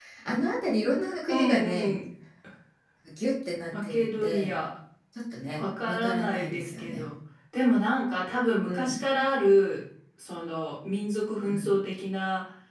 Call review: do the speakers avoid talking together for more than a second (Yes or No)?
No